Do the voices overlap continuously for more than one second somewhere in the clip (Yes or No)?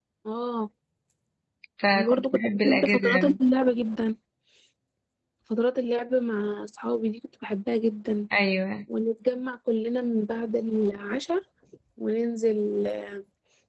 Yes